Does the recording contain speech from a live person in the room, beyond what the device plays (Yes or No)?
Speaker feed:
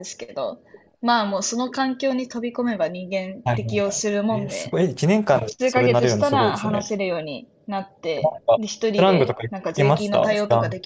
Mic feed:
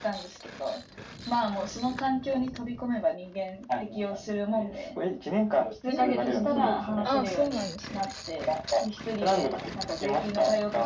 Yes